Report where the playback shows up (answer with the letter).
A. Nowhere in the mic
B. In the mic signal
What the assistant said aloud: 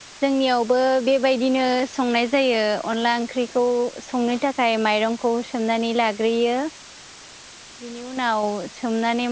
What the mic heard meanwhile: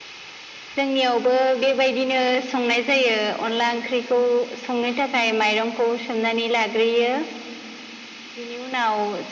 B